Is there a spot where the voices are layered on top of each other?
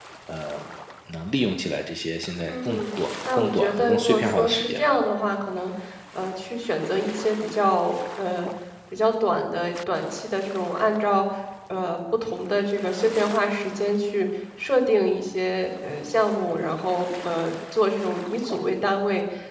Yes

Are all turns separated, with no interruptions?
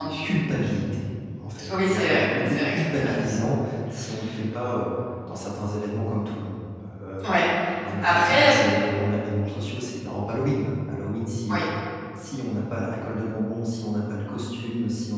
No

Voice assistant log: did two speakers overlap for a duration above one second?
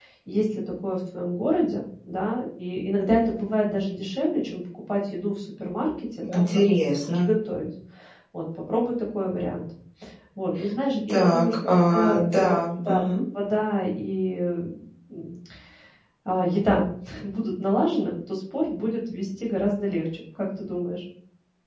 Yes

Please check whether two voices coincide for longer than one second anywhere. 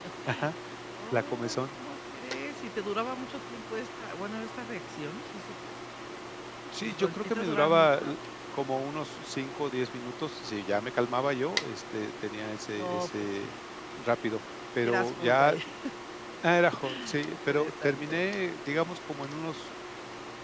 Yes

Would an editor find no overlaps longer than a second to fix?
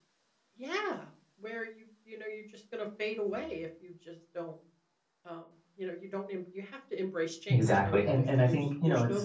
No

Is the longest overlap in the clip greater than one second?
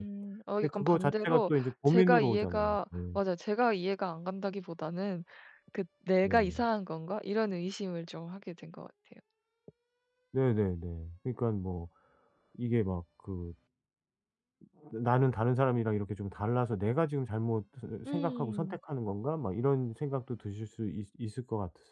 Yes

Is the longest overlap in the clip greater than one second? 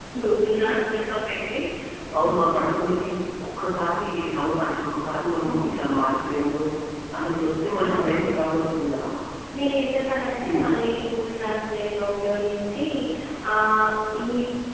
No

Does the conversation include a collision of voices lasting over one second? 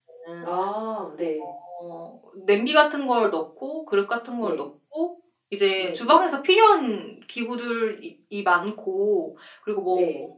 No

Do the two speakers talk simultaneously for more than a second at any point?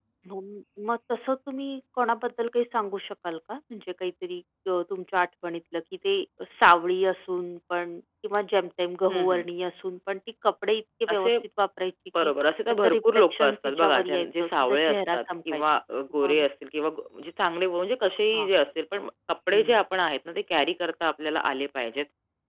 Yes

